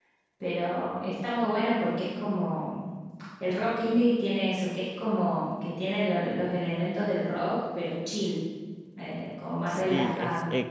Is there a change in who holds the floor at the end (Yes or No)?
Yes